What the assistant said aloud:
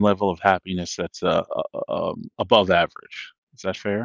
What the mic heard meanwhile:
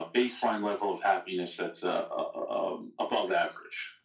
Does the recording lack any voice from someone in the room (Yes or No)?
Yes